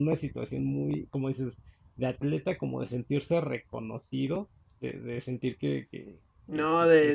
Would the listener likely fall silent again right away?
No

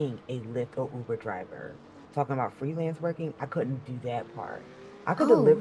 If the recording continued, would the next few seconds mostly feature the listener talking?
No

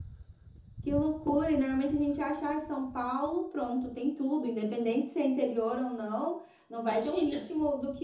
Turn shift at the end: No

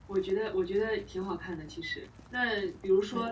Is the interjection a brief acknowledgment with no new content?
Yes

